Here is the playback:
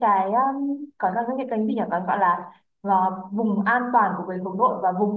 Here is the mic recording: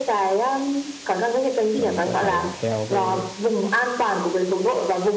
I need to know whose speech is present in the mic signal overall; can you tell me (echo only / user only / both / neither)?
both